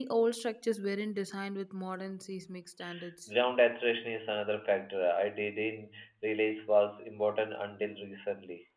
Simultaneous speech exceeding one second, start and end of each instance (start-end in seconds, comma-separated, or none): none